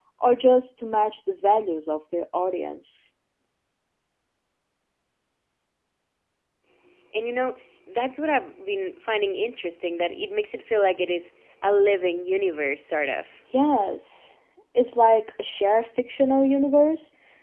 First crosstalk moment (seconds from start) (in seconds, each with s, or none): none